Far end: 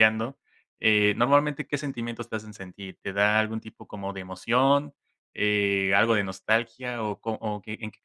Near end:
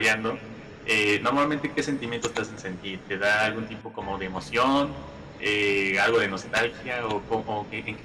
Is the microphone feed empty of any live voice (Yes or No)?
Yes